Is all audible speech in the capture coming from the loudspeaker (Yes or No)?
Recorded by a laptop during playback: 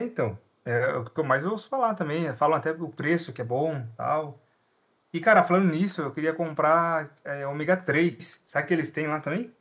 Yes